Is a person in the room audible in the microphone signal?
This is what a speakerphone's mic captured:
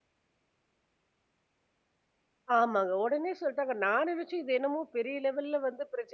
Yes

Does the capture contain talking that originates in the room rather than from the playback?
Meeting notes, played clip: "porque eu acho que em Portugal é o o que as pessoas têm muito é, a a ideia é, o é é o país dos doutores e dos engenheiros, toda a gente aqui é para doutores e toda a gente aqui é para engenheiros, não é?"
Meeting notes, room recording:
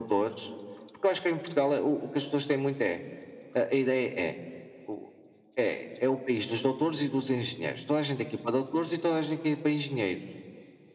No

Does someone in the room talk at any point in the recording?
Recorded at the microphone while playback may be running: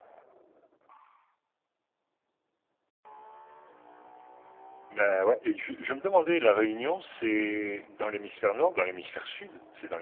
Yes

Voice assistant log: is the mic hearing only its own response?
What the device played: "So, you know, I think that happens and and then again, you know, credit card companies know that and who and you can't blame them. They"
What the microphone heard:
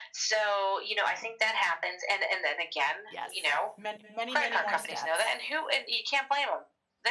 No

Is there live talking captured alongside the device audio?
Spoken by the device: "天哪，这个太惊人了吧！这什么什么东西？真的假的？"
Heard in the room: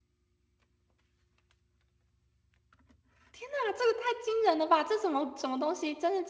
No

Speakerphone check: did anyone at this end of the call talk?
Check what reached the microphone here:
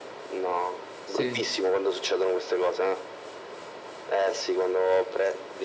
Yes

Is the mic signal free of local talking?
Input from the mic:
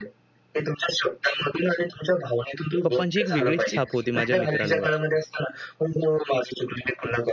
No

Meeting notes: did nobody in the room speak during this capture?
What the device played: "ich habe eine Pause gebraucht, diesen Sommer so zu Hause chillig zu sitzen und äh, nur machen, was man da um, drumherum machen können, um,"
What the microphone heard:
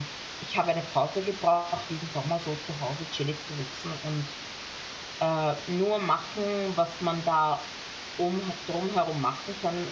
Yes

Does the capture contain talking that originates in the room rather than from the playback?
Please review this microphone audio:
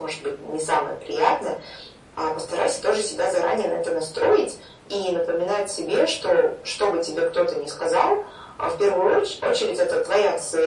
No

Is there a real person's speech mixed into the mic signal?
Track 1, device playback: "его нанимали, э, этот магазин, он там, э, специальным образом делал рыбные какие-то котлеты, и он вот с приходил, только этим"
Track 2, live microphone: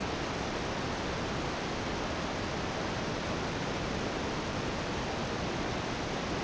No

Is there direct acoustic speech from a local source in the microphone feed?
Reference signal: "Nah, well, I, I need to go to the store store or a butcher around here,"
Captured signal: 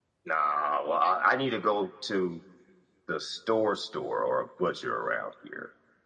No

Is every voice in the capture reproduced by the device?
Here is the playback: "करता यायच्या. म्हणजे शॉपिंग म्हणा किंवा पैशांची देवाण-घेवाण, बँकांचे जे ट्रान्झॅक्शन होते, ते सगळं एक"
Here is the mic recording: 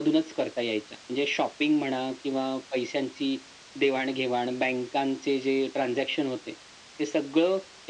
Yes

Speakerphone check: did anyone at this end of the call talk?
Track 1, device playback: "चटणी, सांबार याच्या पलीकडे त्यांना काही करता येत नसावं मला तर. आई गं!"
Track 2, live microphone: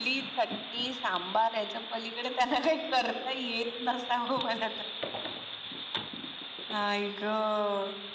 No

